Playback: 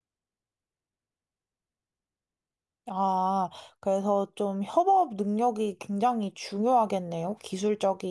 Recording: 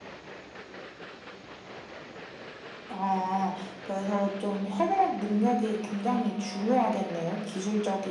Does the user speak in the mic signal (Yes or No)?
No